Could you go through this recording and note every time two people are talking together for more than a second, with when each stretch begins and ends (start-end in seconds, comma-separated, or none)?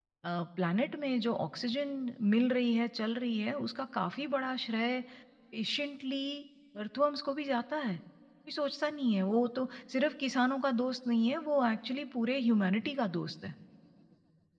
none